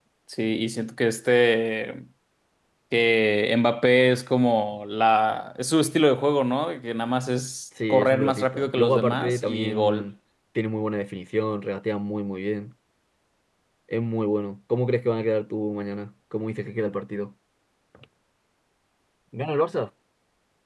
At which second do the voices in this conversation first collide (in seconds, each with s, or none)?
7.8 s